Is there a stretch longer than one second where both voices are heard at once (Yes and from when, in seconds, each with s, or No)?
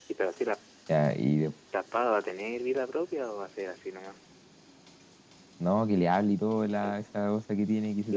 No